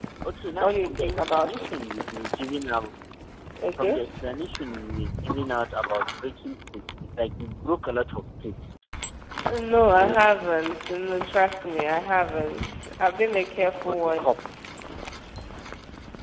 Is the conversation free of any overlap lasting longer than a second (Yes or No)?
No